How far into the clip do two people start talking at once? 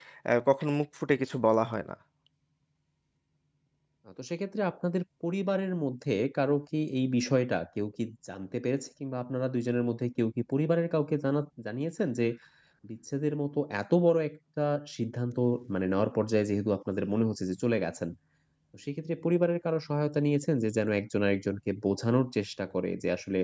none

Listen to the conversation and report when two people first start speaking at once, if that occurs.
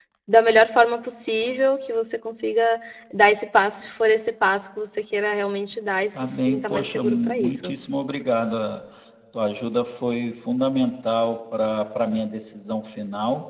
6.1 s

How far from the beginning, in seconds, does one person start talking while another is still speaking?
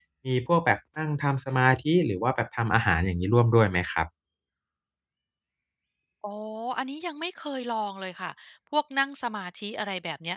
none

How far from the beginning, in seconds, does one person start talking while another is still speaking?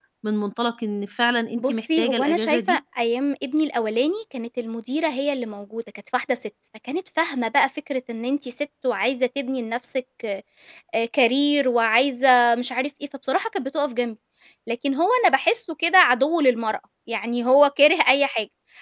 1.6 s

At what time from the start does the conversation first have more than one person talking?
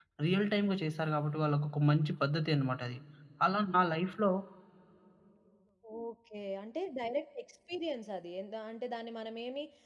none

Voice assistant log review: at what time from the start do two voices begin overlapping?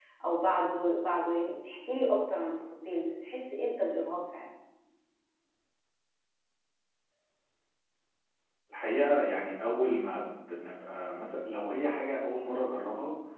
none

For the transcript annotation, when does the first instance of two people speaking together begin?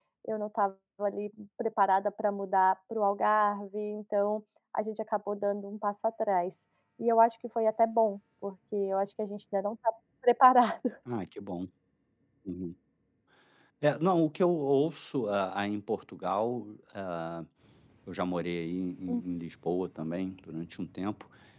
none

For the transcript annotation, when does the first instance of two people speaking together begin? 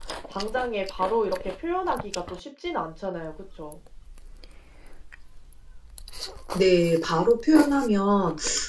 none

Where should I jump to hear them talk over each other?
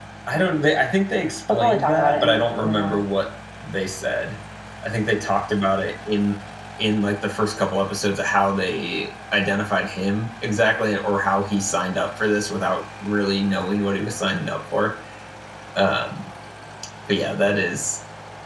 1.5 s

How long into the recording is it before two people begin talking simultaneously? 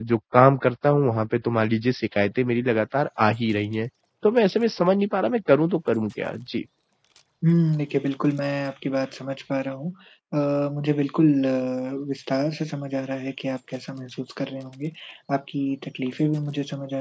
none

